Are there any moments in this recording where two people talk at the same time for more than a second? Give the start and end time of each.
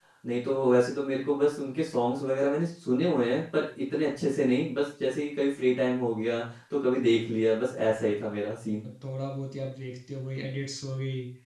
none

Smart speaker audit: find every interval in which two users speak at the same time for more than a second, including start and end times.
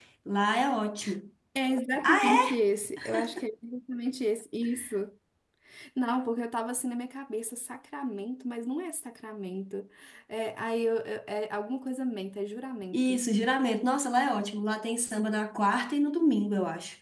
none

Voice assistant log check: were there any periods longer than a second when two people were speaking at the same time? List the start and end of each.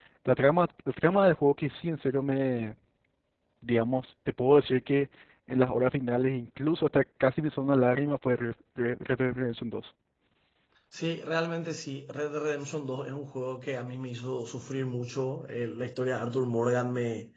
none

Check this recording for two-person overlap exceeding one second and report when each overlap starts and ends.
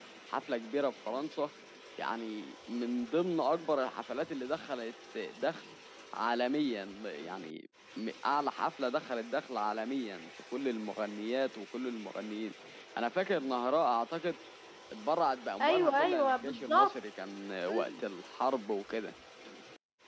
15.6-17.0

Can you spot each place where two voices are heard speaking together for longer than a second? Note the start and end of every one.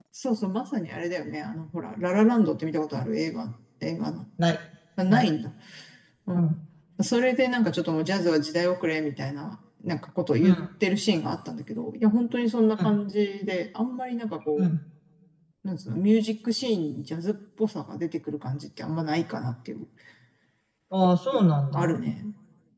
none

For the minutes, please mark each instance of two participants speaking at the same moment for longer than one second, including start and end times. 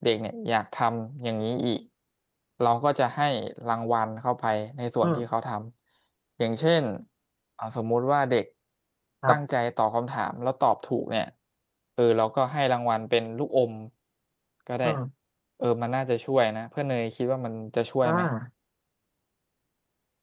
none

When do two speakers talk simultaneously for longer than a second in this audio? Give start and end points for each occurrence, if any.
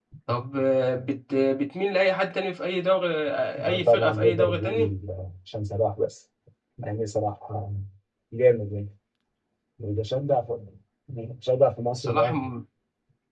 3.7-4.9

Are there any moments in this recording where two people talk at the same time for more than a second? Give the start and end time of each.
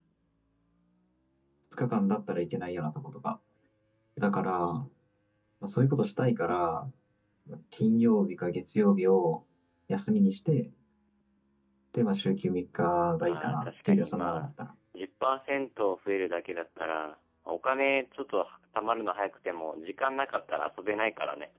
13.2-14.4

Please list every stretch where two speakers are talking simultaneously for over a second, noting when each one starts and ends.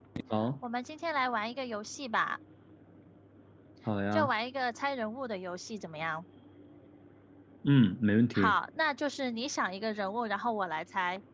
none

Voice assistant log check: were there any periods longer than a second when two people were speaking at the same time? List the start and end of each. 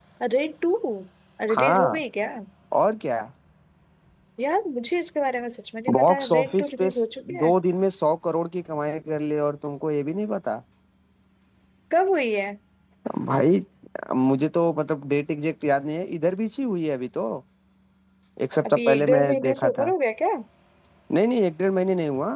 5.9-7.5, 18.7-19.9

